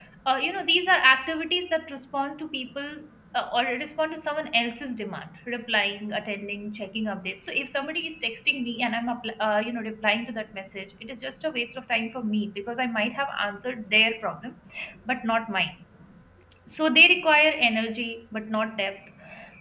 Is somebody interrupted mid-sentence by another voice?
No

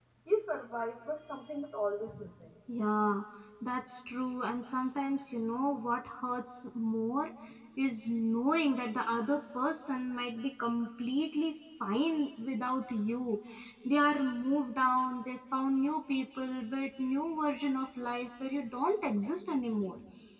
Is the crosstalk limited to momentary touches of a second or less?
Yes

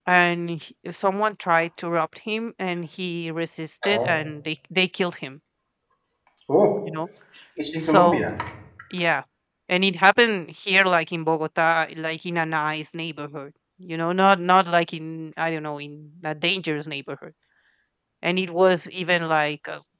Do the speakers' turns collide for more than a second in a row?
No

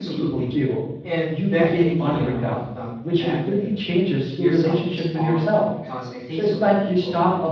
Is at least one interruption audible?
Yes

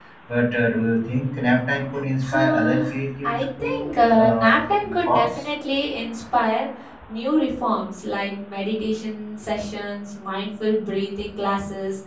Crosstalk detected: Yes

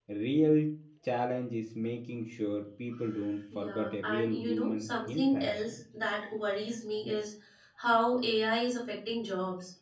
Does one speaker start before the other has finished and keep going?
Yes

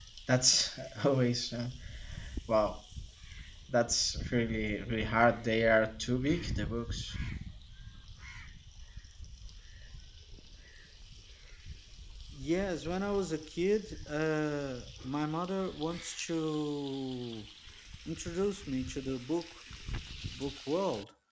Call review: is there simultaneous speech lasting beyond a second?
No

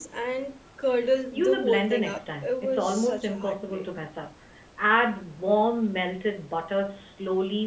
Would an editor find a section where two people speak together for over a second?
Yes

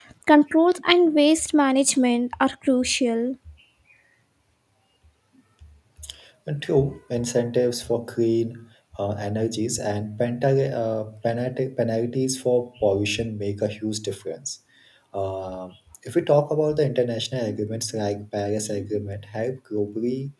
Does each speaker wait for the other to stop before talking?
Yes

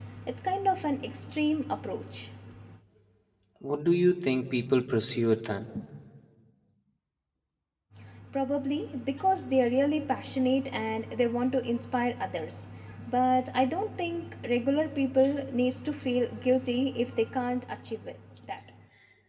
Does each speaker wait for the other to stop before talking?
Yes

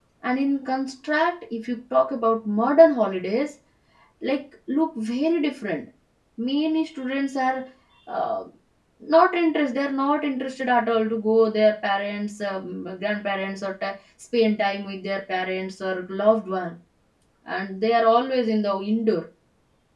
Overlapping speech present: No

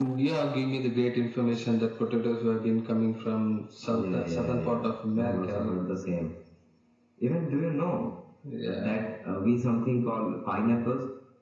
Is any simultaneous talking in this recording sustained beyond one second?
Yes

